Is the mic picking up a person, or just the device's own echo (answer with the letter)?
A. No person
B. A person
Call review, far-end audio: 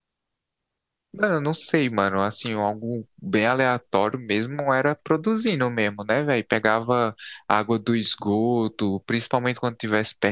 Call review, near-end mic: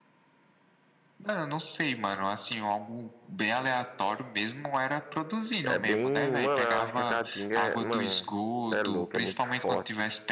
B